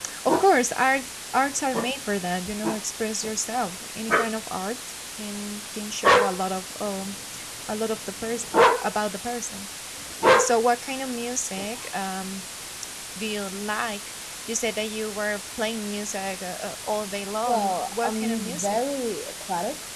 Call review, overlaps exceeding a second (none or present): present